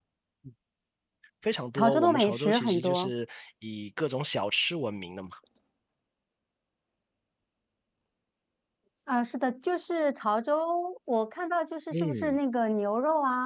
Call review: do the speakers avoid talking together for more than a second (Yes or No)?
No